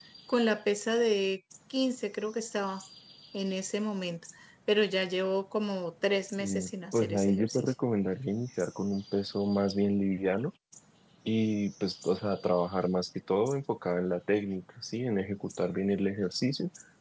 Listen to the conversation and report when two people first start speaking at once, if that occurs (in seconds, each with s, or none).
6.4 s